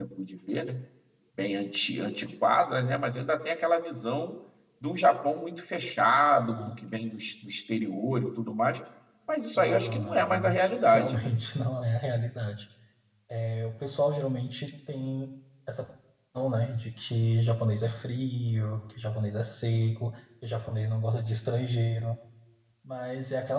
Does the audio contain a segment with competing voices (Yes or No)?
Yes